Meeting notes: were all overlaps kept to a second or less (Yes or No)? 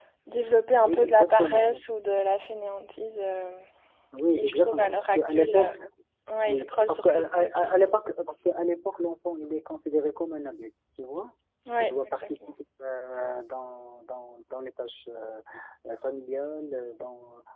No